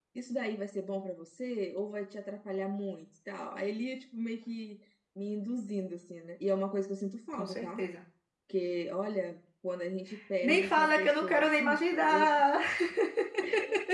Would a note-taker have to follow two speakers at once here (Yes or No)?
Yes